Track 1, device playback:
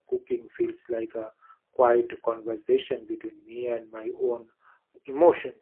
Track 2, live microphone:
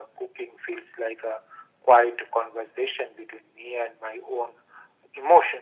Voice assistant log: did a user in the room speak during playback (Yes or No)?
No